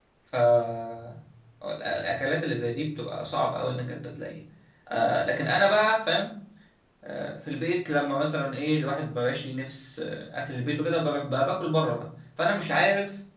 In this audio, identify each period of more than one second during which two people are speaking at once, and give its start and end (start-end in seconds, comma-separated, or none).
none